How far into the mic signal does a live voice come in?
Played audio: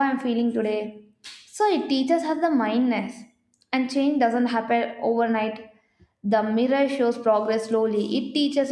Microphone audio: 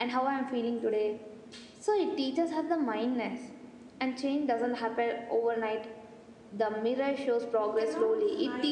7.6 s

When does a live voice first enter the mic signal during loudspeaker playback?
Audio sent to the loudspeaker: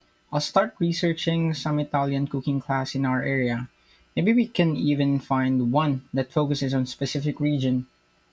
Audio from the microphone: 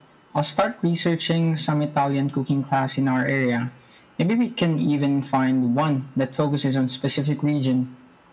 none

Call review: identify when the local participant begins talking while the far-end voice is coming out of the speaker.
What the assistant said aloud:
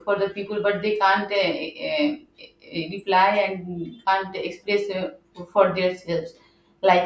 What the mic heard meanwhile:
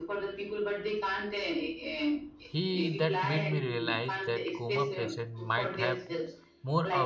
2.5 s

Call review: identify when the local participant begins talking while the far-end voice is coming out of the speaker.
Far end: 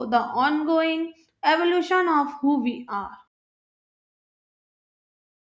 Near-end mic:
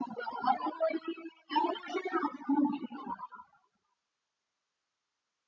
none

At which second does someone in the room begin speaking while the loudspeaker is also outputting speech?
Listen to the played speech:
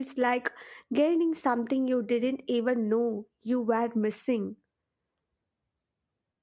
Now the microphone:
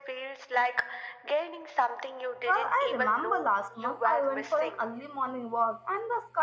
2.4 s

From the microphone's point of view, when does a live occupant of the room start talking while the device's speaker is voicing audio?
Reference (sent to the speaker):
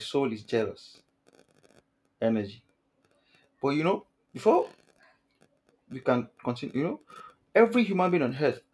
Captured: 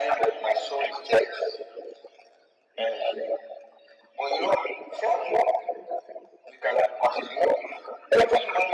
none

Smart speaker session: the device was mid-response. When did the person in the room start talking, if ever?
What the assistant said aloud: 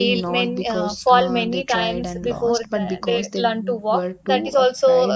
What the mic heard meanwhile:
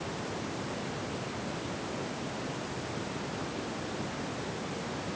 none

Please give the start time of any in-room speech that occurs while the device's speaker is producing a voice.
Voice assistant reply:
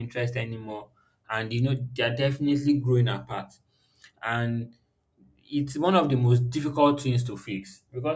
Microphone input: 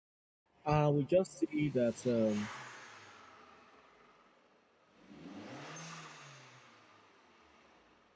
0.7 s

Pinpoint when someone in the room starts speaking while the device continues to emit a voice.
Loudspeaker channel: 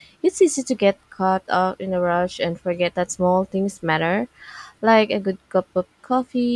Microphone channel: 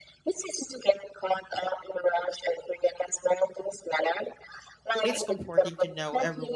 5.0 s

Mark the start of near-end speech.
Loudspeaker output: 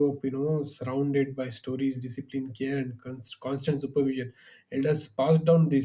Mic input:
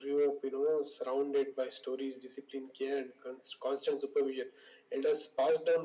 none

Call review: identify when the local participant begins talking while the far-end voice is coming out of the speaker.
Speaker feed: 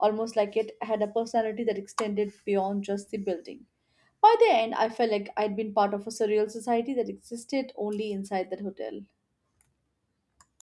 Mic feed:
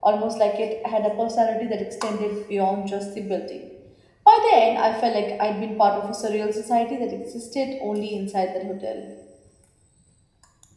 none

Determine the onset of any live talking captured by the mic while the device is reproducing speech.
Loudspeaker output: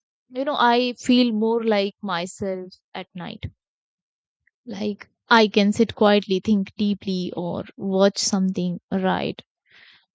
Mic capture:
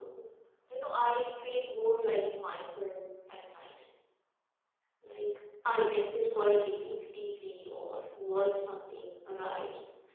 none

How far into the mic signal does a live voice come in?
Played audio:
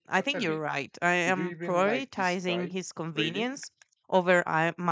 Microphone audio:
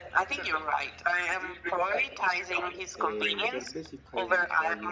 2.9 s

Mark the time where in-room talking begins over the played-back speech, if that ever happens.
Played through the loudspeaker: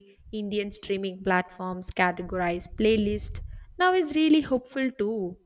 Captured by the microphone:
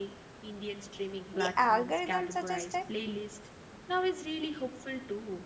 1.3 s

